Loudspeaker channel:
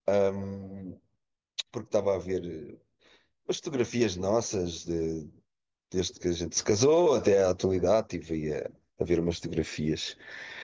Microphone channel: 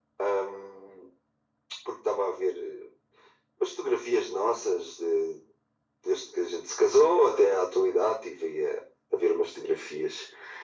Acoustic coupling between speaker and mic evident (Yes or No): Yes